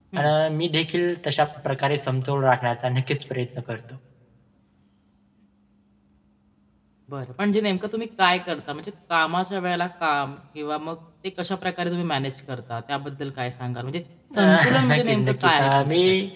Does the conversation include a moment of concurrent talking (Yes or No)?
Yes